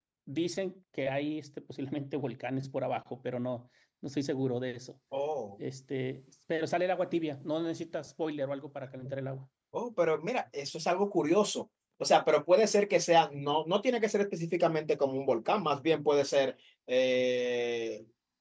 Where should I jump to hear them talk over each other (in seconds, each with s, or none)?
none